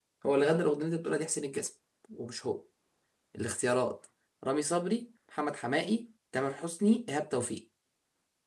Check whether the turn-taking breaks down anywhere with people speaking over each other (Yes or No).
No